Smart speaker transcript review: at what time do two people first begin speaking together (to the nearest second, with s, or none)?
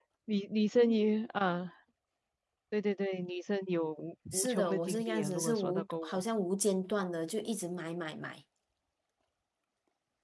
4 s